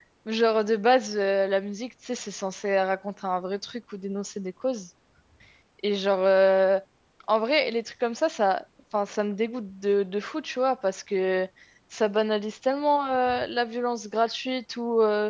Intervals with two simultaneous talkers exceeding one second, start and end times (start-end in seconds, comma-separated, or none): none